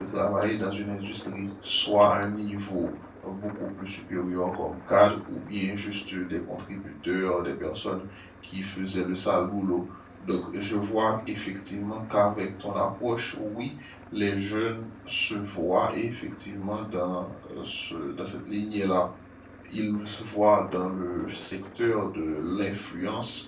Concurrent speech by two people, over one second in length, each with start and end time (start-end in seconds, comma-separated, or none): none